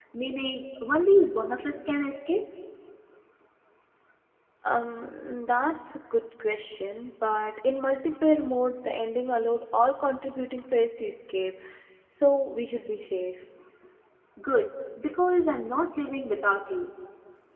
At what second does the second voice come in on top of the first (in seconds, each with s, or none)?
none